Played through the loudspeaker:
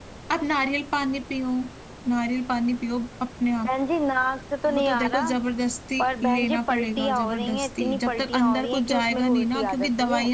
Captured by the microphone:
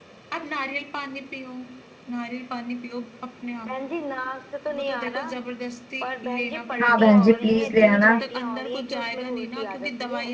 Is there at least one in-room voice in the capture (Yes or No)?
Yes